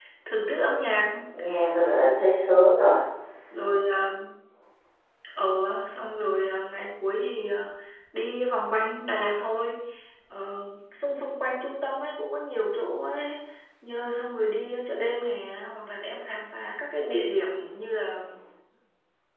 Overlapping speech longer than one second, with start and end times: none

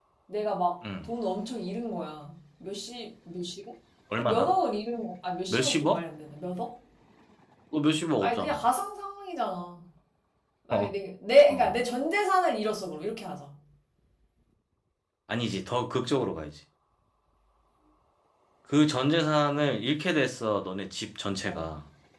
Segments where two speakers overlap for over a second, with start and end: none

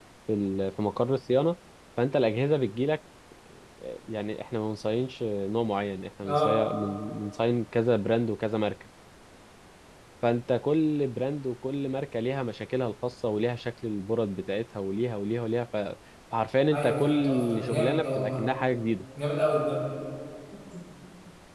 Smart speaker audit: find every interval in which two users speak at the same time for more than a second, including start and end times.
16.7-18.5

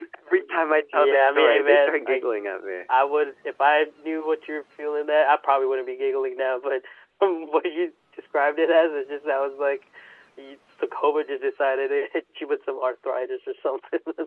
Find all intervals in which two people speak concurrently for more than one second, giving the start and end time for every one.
0.9-2.2

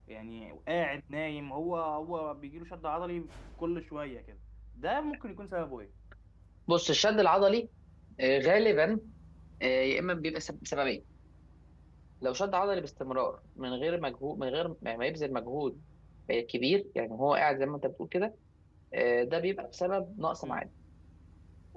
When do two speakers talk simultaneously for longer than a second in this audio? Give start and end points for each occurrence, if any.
none

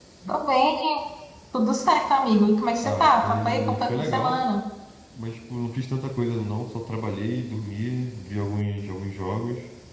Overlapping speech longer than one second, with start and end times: 2.8-4.3

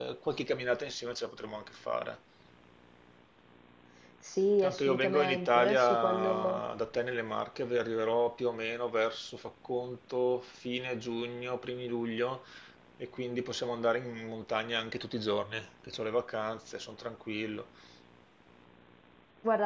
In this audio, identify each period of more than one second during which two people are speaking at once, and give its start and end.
4.6-6.6

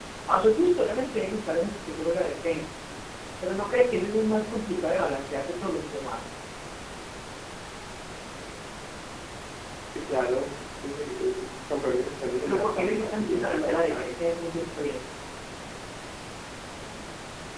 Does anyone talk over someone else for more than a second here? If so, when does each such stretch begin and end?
12.4-14.1

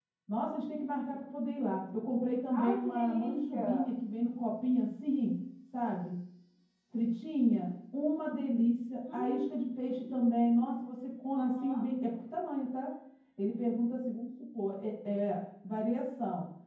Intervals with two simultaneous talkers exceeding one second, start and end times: 2.5-3.9

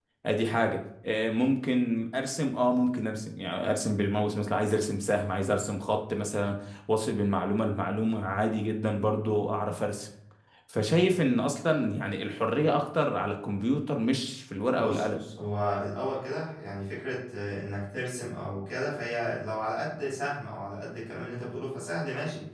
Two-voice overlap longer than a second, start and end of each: none

